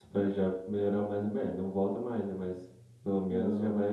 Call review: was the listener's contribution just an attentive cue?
Yes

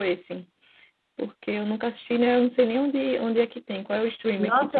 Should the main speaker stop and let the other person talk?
Yes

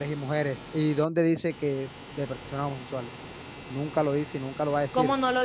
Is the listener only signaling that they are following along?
No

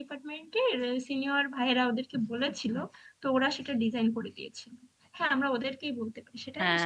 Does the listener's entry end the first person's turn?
Yes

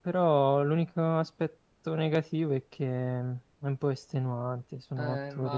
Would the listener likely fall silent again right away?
No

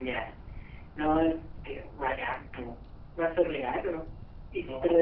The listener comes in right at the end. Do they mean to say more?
No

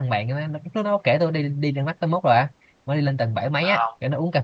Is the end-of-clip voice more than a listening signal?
No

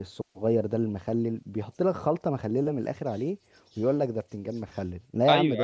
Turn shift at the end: Yes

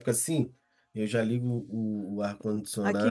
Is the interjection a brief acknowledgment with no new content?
No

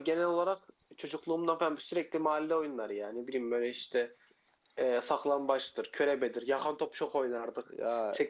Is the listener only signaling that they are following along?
Yes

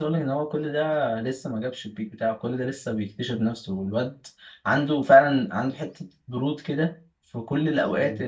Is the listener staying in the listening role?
Yes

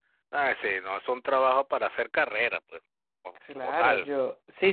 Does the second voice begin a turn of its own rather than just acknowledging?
Yes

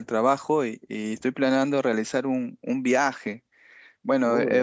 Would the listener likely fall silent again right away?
Yes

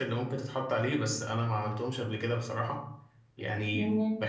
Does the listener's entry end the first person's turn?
No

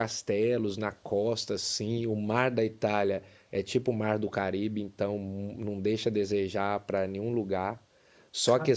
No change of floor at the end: Yes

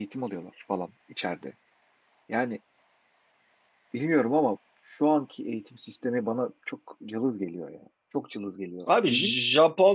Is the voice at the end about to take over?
Yes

